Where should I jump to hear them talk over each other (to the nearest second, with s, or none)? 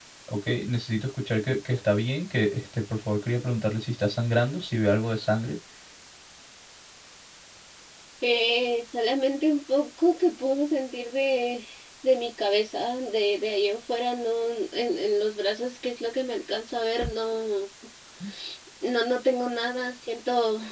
none